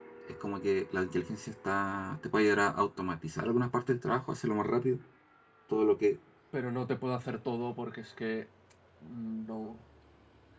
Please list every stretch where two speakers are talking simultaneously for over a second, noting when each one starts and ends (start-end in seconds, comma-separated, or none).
none